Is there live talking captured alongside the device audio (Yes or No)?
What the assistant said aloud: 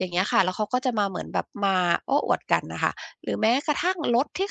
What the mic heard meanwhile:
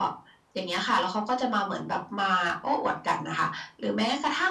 No